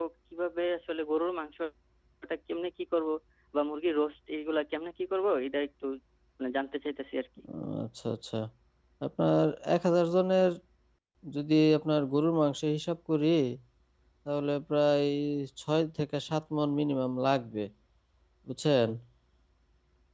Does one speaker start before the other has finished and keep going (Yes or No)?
No